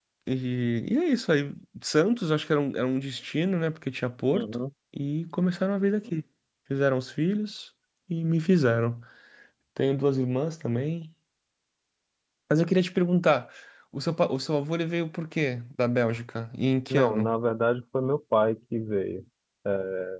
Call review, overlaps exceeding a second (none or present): none